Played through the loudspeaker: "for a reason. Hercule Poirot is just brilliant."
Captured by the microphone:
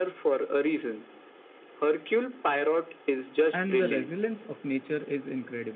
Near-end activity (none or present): present